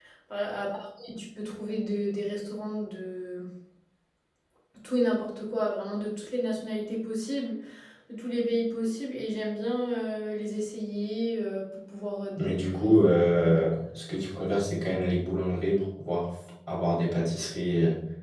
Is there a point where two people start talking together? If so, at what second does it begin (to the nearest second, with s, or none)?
12 s